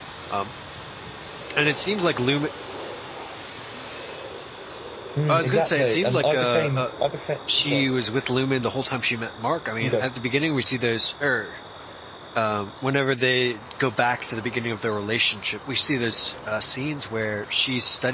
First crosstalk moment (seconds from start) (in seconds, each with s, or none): 5.3 s